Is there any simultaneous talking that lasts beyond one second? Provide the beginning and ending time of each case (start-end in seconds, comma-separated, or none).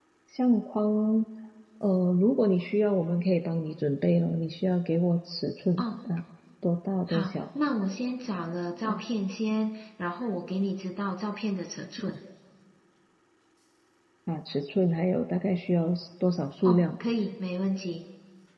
none